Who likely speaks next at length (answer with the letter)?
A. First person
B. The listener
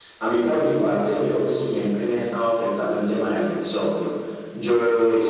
A